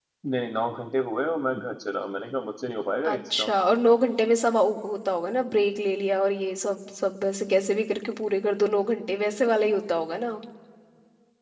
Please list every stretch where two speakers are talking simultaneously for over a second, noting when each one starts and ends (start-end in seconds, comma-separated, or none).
none